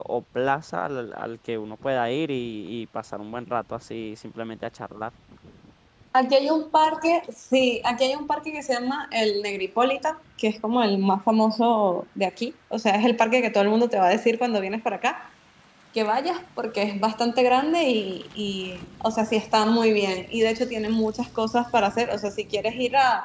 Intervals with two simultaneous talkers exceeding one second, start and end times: none

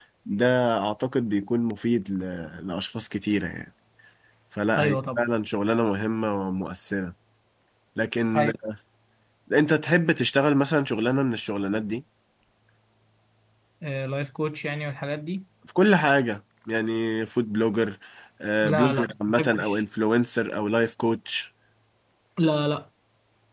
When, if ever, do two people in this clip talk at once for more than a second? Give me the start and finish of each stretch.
18.6-19.8

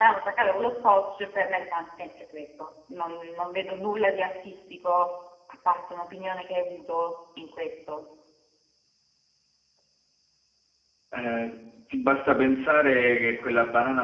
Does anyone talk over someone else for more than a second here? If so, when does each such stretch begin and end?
none

